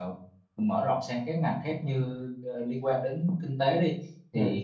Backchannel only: Yes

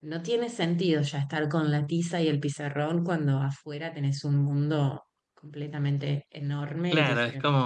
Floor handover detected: Yes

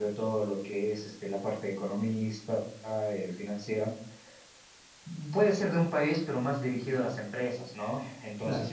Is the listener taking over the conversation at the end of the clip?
No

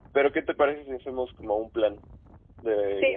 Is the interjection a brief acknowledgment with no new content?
No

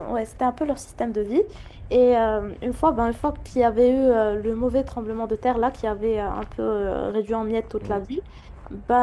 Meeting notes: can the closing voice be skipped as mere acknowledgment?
Yes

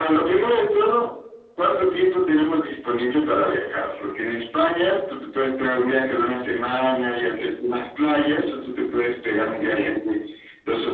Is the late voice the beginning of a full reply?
No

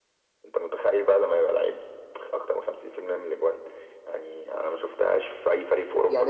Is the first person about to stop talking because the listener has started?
Yes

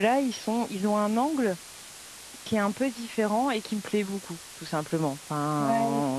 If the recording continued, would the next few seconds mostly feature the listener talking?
No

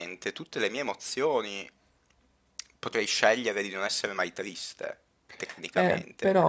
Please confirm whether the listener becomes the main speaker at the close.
Yes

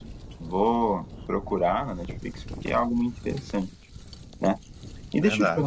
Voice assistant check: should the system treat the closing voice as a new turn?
No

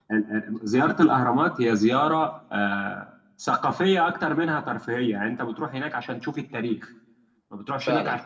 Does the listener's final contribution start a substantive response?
No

